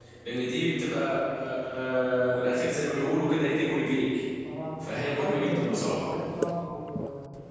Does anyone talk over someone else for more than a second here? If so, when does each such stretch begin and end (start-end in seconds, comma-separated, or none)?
4.8-6.0